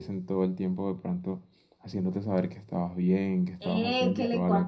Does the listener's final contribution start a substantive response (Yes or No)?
Yes